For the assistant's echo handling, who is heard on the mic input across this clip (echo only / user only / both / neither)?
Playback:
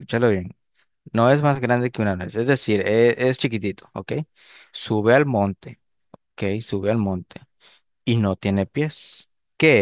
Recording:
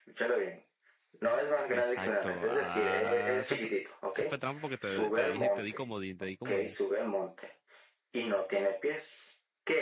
both